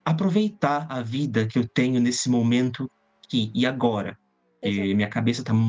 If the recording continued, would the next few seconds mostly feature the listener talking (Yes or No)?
No